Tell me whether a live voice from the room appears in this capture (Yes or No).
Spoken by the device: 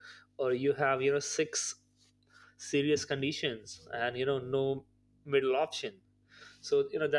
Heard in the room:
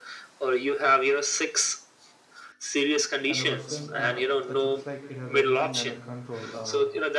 Yes